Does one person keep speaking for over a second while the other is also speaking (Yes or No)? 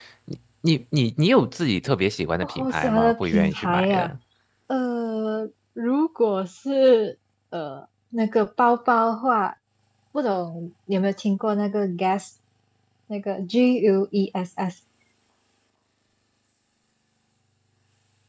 Yes